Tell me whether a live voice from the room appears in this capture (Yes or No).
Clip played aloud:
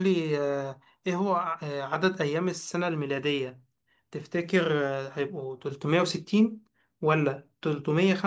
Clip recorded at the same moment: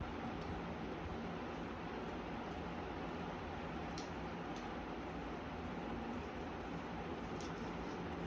No